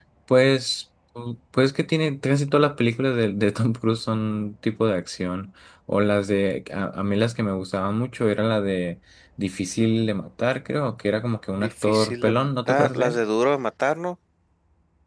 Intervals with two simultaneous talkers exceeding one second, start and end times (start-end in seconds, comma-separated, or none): 11.6-13.2